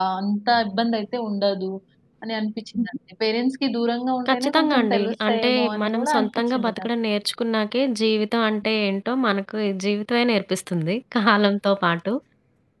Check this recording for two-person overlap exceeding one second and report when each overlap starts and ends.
4.3-6.9

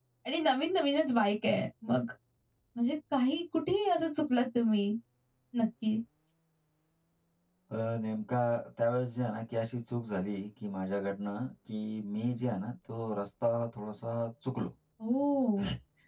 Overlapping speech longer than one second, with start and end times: none

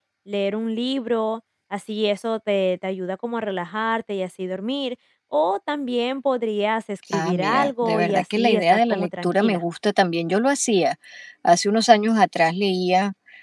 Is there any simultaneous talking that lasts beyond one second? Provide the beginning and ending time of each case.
7.1-9.6

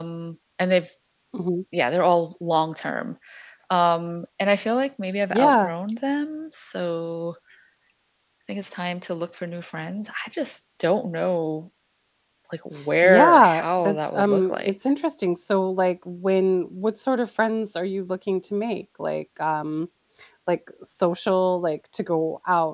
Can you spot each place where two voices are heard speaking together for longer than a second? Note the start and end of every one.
13.0-14.7

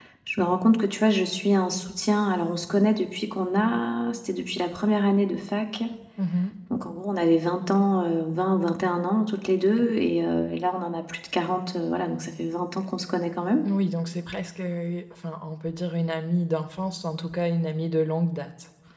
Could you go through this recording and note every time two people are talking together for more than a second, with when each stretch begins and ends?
none

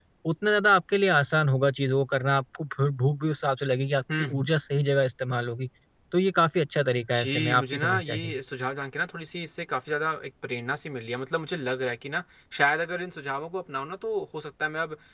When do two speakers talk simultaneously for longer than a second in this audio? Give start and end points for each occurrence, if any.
7.2-8.4

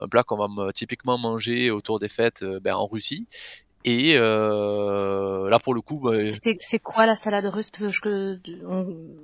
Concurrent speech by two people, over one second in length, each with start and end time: none

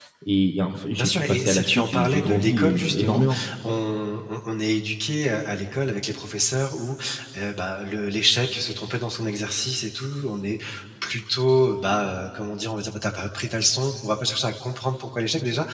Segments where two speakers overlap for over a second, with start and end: 0.9-3.2

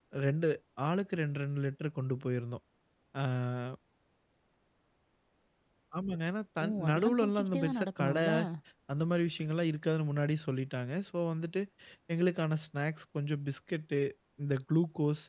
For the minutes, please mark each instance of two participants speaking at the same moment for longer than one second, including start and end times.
6.6-8.2

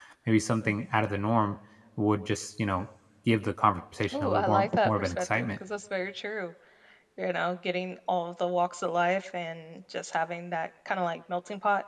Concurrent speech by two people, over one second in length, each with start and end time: 4.1-5.5

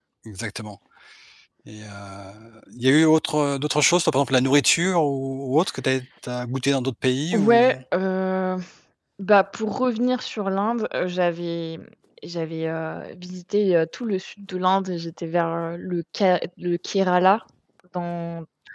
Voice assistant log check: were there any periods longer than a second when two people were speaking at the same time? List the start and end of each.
none

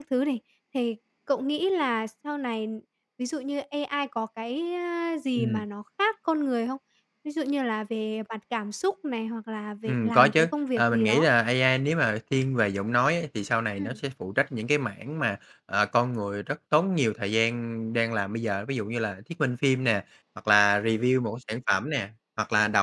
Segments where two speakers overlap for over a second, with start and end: 9.8-11.3

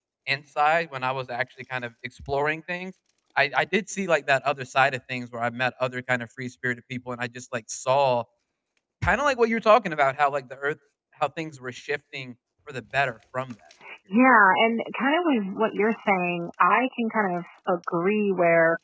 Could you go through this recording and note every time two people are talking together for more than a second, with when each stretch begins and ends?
none

